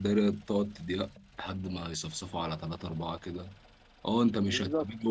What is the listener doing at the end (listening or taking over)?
listening